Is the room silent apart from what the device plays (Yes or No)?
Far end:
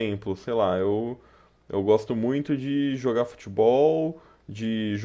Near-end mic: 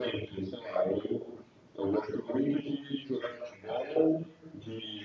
Yes